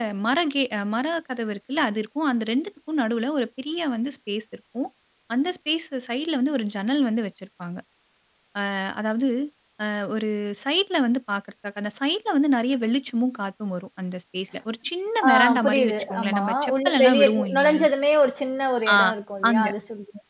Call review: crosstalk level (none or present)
present